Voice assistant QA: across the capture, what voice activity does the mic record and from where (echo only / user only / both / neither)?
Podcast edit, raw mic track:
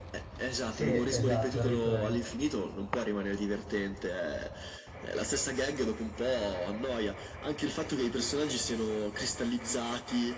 both